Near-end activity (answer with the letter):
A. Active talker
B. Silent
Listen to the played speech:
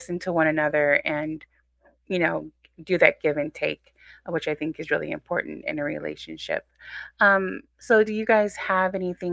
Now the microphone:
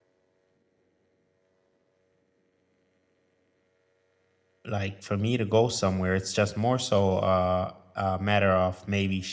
A